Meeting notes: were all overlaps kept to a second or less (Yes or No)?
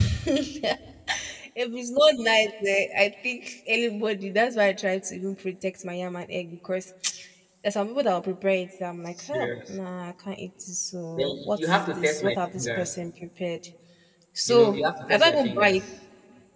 No